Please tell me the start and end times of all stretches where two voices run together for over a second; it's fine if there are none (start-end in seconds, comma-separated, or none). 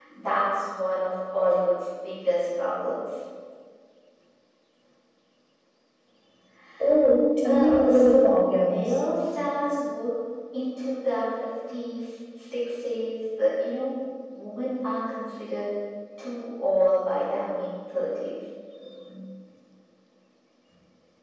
7.4-8.9